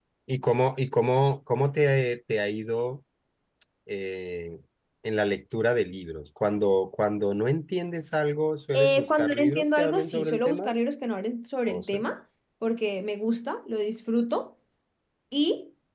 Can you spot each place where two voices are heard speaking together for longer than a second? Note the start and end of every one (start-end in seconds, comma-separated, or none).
8.7-10.7